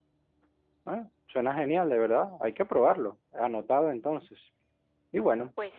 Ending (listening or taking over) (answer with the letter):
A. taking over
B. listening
B